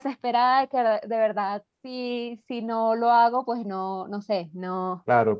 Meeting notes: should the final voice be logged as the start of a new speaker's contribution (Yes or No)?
Yes